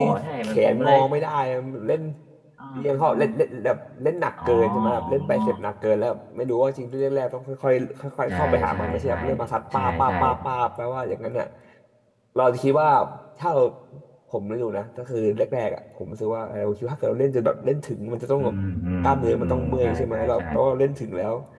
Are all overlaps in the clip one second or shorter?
No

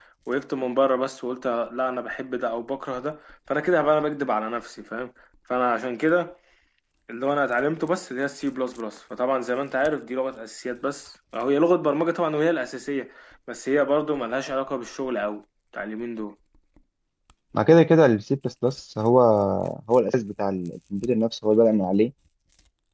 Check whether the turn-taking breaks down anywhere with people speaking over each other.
No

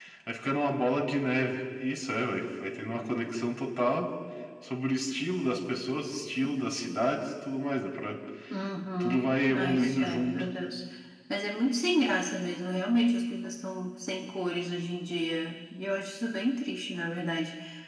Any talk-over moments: Yes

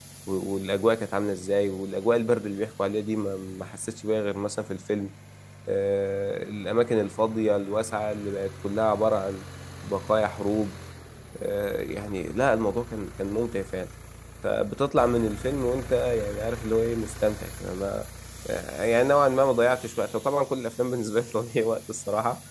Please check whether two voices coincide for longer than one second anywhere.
No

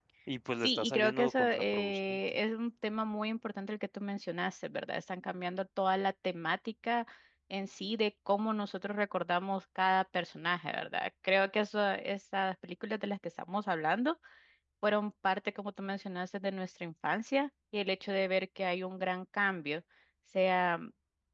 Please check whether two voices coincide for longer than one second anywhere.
Yes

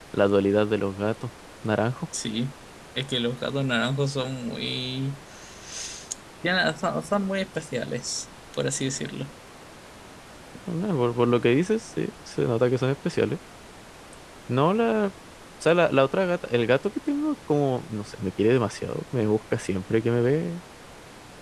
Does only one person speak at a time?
Yes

